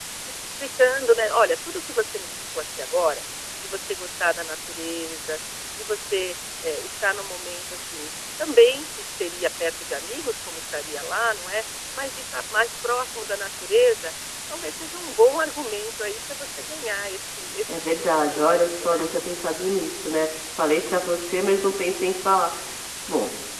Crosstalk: present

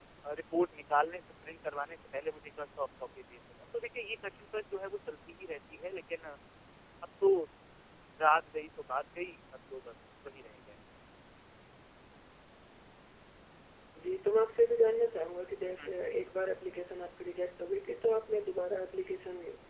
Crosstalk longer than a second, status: none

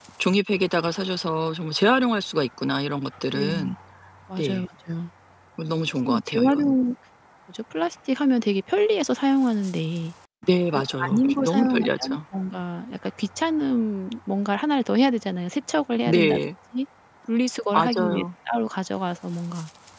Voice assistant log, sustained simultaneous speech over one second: present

